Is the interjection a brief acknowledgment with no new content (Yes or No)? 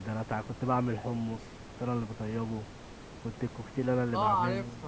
No